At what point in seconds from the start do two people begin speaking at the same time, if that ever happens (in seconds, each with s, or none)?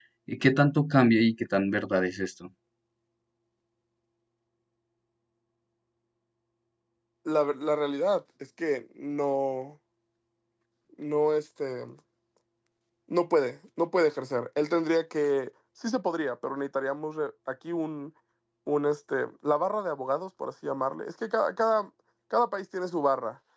none